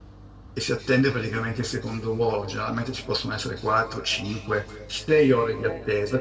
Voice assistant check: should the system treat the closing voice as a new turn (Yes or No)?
No